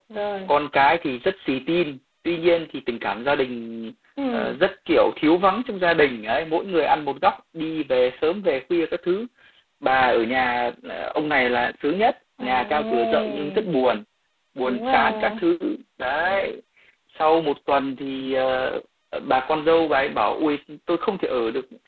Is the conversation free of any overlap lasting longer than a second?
No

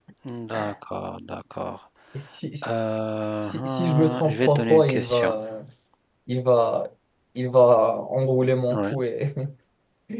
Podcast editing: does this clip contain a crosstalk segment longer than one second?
Yes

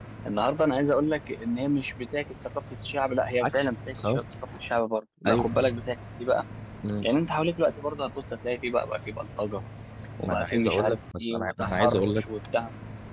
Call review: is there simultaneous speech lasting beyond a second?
Yes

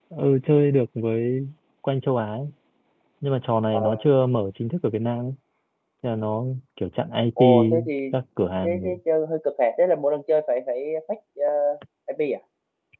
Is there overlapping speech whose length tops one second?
No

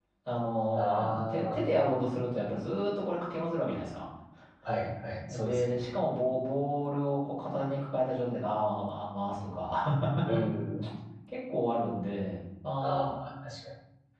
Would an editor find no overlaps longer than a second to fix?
No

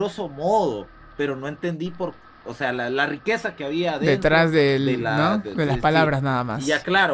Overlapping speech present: Yes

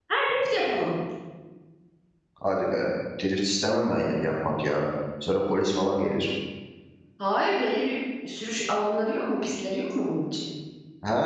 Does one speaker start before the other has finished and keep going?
No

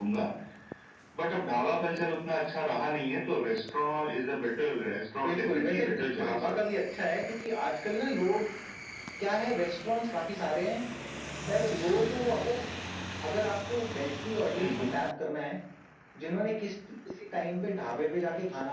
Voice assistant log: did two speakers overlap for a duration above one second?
Yes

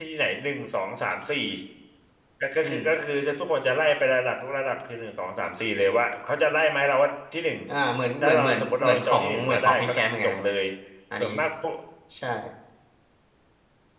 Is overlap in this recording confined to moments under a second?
No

